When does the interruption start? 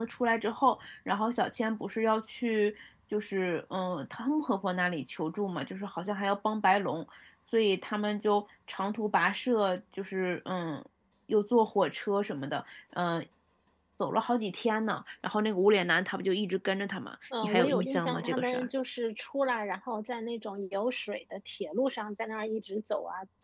17.3 s

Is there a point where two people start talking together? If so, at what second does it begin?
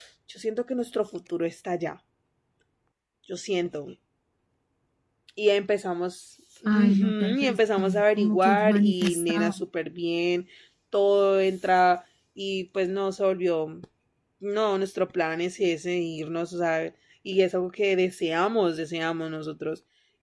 6.7 s

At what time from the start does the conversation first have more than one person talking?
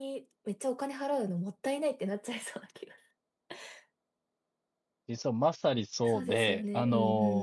6.0 s

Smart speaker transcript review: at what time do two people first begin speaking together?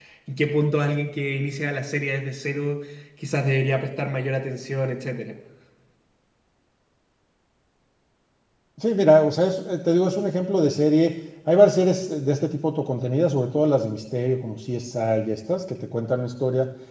none

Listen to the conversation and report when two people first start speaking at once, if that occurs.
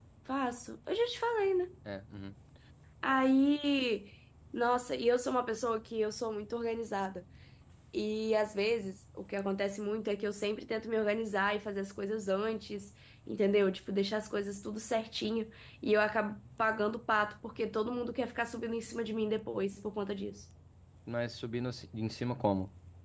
none

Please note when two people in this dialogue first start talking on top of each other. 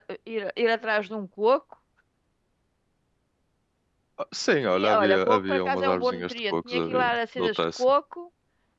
4.7 s

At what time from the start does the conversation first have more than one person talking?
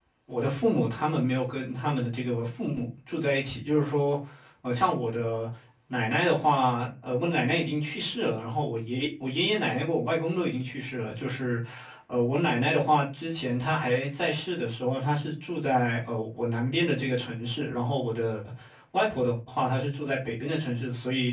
none

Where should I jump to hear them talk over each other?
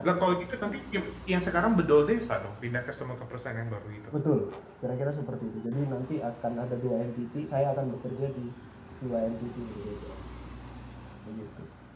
none

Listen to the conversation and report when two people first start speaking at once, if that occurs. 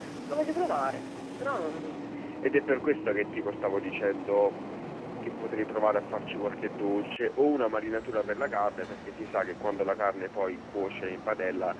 none

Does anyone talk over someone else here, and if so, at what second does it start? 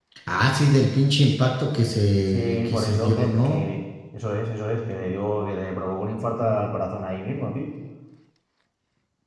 2.3 s

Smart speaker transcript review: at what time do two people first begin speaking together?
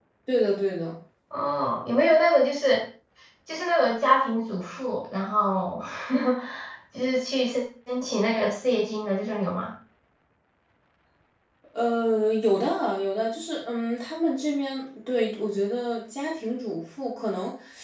none

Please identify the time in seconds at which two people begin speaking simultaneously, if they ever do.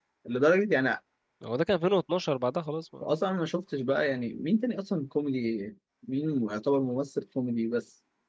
none

